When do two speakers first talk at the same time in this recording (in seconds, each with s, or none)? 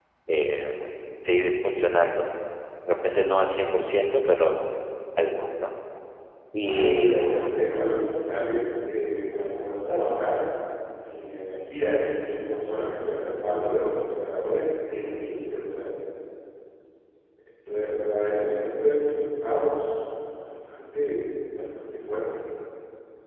6.6 s